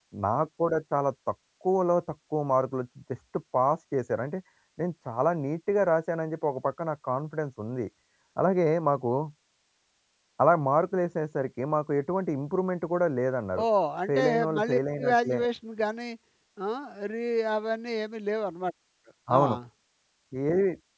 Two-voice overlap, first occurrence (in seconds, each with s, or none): 14.1 s